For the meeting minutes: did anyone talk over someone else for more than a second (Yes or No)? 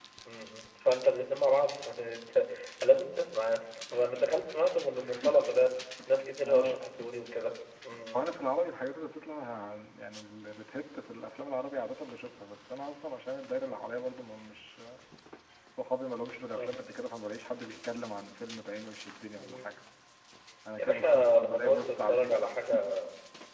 Yes